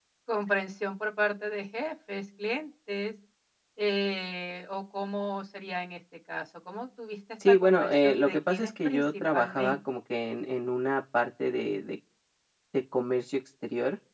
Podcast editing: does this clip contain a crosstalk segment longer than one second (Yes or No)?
Yes